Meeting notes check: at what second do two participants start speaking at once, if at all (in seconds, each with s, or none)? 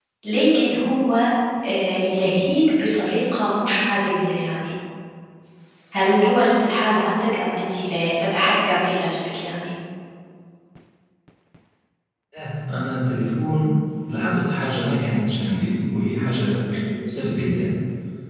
none